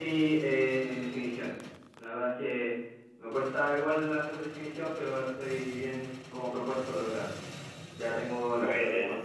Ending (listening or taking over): listening